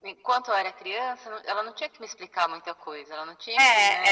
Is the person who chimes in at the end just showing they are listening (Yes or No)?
No